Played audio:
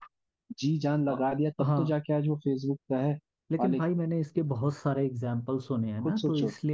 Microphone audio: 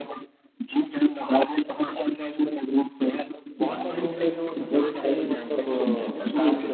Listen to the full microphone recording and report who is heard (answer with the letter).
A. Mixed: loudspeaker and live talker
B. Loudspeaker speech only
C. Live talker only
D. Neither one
A